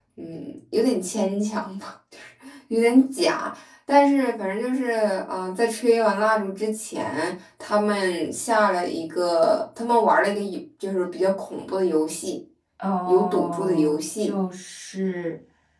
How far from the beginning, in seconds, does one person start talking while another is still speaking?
13 s

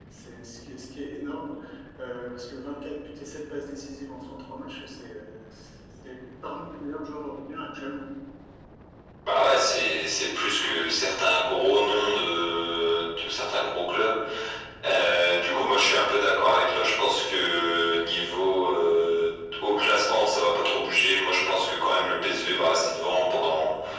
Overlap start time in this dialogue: none

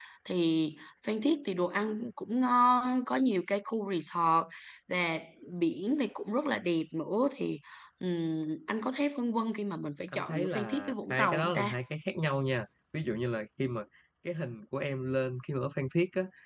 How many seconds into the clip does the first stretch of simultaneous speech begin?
10 s

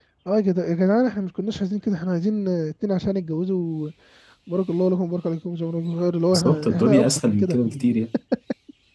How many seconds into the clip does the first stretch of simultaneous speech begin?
6 s

